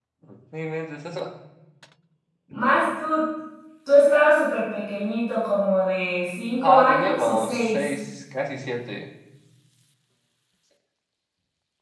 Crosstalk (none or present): present